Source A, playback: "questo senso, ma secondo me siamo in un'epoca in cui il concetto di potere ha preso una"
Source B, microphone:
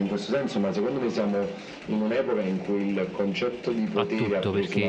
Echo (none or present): present